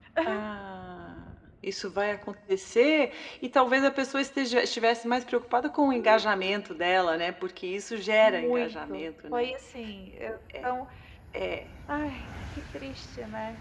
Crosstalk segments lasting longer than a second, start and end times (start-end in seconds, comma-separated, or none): 8.2-9.5